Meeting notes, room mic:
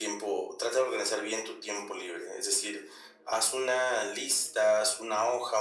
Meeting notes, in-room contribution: none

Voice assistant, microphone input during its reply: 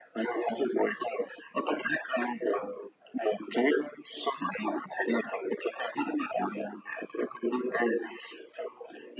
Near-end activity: none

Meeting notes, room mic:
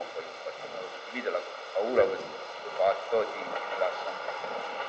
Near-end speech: none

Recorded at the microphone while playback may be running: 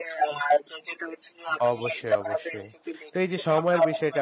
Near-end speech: present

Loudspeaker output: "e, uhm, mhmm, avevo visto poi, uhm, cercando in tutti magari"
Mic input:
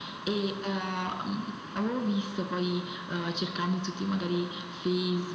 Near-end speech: none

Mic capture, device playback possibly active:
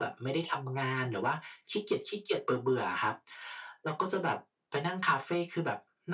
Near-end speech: none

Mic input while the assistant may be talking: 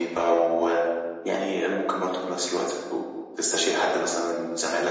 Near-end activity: none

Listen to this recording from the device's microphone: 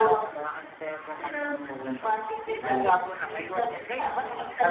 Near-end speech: none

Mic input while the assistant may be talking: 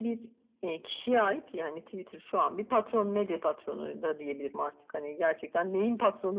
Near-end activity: none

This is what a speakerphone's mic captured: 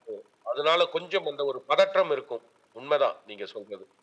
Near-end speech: none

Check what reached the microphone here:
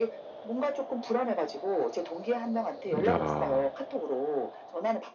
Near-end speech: present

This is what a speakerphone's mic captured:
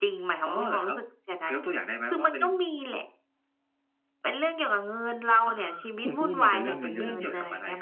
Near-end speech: present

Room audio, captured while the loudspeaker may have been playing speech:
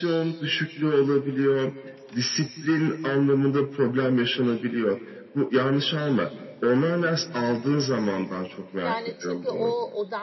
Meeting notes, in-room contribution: present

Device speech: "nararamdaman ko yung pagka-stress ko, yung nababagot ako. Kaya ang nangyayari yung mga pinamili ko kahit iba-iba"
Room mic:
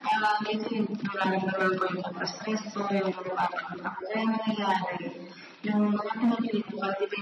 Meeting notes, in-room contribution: none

